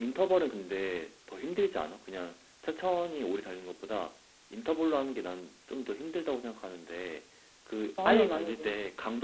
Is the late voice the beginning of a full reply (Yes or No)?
No